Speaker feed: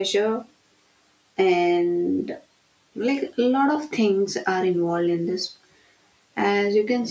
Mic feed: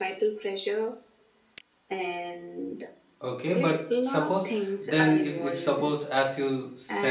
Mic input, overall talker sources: both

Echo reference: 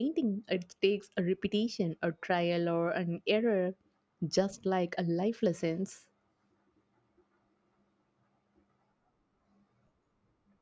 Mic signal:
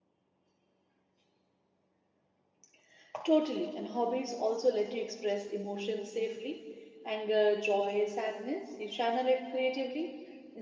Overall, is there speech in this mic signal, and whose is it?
user only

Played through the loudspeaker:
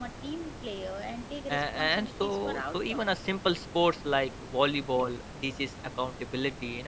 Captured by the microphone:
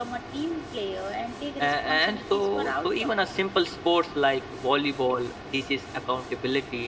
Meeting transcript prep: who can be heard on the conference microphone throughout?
echo only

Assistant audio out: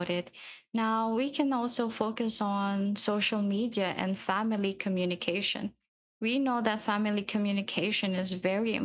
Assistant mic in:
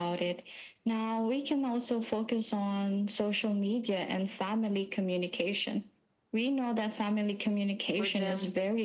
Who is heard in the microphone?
both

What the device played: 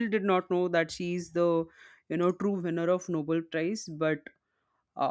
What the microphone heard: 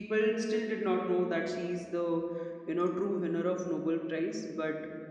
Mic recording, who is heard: echo only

